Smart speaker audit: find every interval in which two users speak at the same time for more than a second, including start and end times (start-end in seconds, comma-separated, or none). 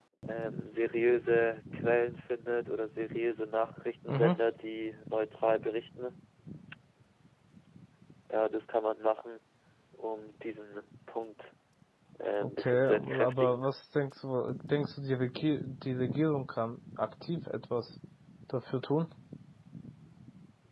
12.4-13.6